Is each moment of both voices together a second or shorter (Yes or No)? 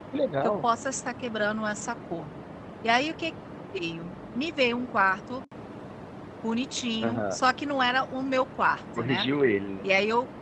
Yes